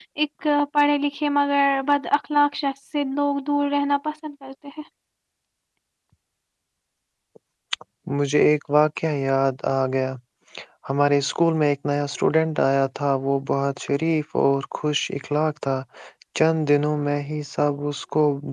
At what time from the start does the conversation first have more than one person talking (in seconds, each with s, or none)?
none